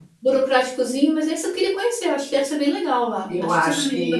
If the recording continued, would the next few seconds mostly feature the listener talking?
Yes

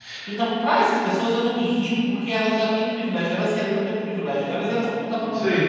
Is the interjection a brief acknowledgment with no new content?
No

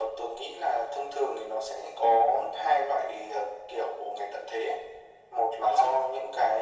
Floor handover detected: No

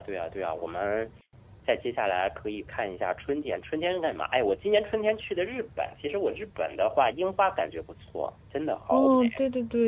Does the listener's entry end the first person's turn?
Yes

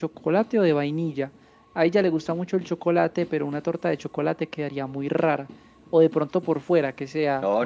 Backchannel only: No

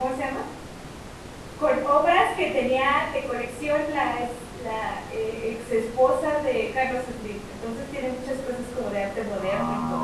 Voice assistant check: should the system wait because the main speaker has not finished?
No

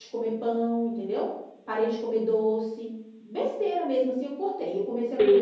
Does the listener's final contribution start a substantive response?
Yes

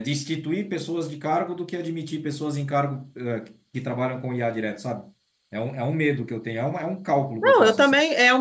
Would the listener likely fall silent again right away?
No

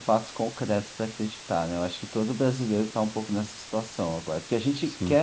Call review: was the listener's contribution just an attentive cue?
Yes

